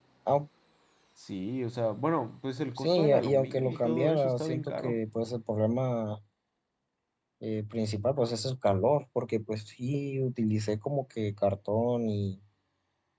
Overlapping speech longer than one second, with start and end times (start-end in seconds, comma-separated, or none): 2.8-5.0